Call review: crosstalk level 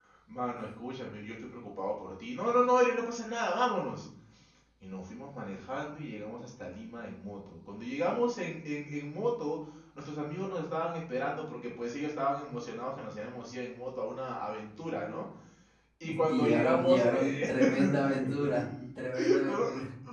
present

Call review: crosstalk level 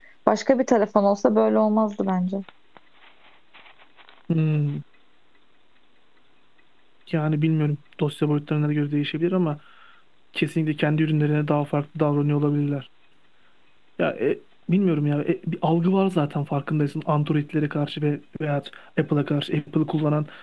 none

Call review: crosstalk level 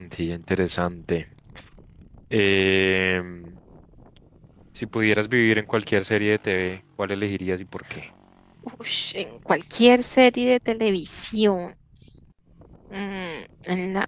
none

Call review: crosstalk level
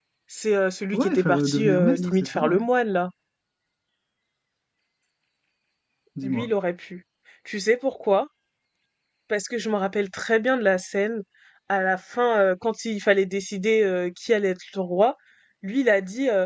present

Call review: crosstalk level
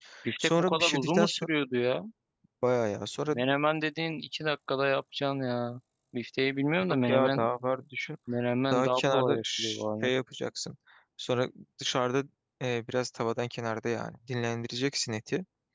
present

